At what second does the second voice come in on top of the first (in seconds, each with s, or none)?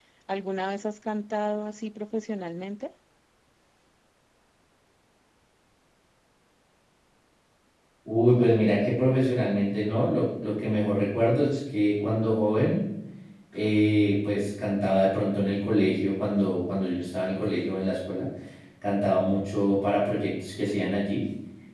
none